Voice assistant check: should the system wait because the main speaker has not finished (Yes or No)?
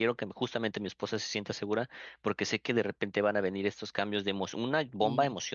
Yes